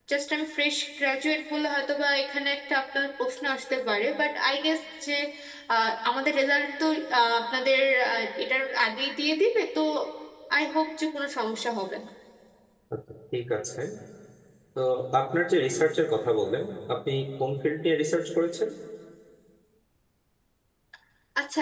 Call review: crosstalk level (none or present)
none